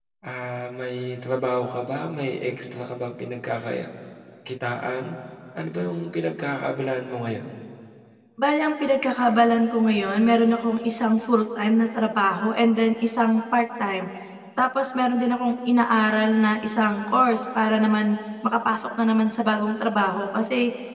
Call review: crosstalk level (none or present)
none